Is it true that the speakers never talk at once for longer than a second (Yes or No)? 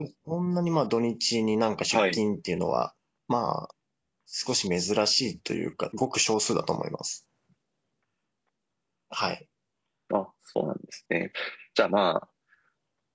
Yes